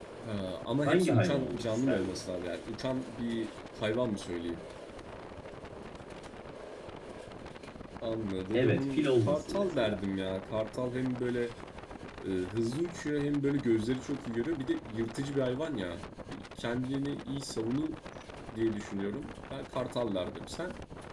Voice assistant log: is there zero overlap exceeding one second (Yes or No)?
No